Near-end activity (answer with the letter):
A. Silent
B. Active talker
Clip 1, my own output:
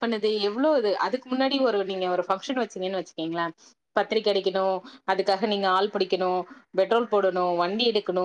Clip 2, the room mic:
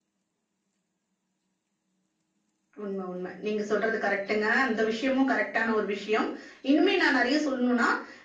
B